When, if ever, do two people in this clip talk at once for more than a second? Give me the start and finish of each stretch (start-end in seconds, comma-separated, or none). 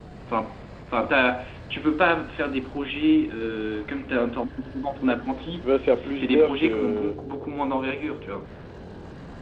5.6-7.2